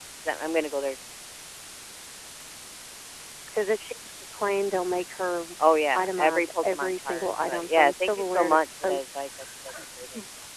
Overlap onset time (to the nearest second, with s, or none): 6 s